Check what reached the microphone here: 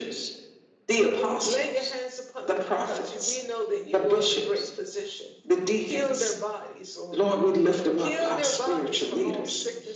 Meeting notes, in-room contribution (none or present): present